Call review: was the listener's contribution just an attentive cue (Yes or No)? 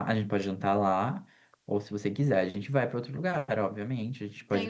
No